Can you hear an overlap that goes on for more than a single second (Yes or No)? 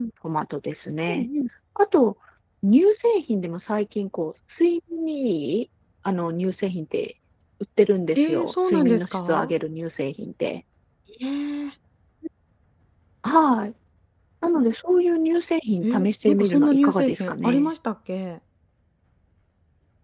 Yes